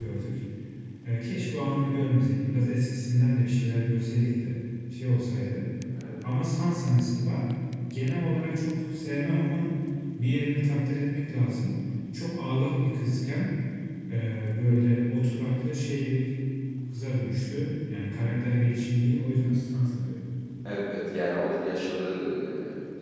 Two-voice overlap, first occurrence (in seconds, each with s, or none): none